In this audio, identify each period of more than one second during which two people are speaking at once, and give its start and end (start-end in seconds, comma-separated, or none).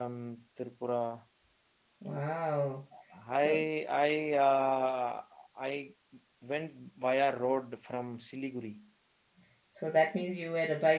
none